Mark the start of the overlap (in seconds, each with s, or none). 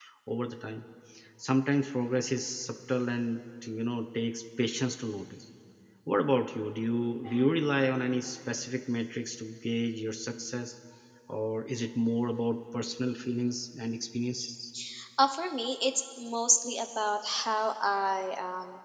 none